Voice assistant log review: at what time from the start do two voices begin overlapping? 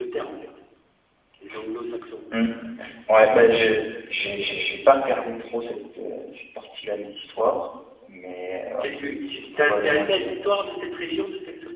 8.8 s

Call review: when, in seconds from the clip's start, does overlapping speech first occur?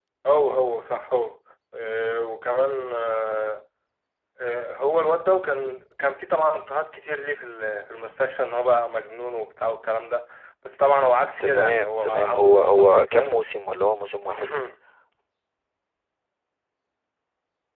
11.4 s

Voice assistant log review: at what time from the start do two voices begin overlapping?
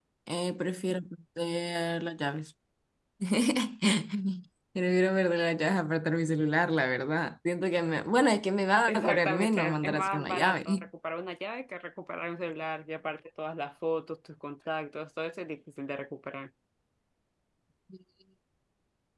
8.9 s

